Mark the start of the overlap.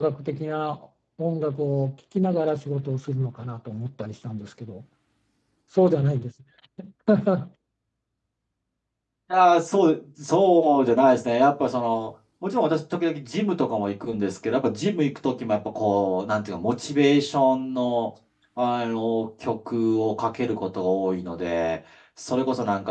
none

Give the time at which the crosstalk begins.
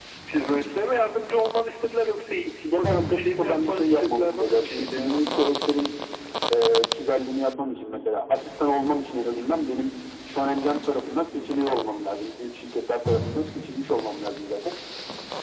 2.6 s

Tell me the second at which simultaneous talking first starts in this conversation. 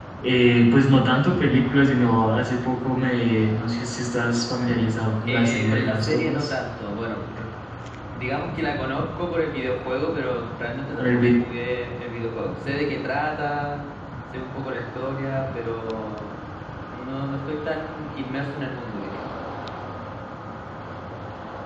5.2 s

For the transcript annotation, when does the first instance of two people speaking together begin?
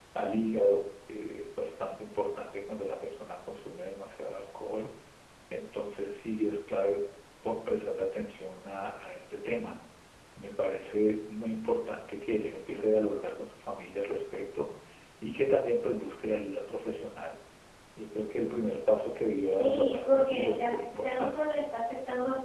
19.6 s

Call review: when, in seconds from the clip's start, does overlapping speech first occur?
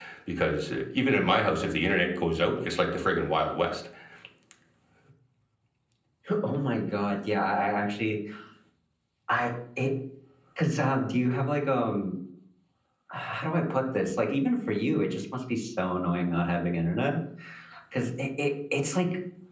none

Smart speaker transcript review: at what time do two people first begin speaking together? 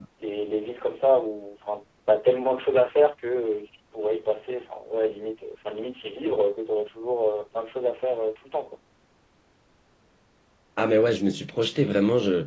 none

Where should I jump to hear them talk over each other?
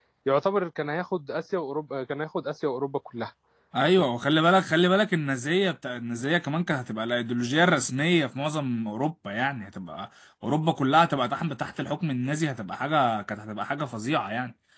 none

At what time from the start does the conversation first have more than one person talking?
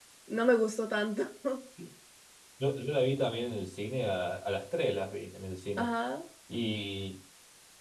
none

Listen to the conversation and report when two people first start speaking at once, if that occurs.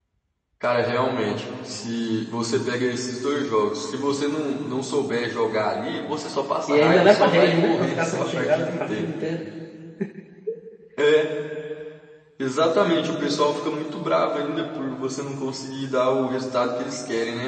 6.7 s

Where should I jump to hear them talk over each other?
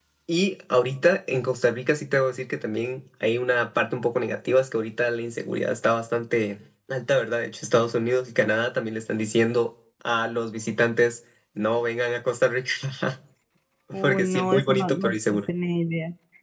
14.0 s

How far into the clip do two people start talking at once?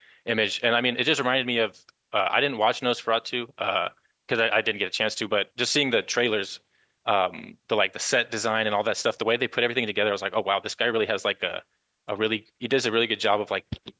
none

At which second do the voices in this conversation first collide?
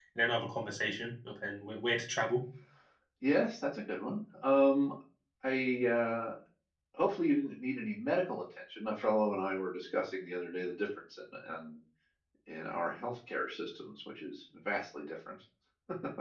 none

